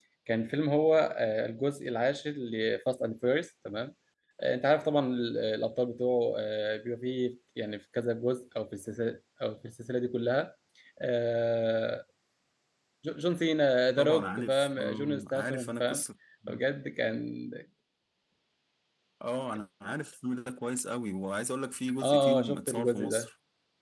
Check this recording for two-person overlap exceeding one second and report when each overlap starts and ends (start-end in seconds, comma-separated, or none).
14.0-16.0, 22.0-23.3